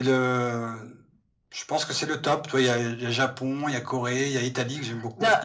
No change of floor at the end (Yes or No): No